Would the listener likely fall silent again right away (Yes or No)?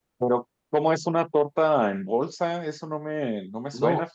No